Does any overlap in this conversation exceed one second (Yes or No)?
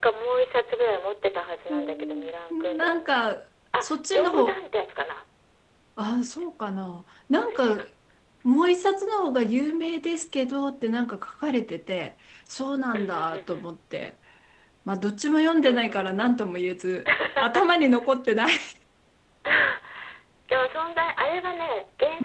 Yes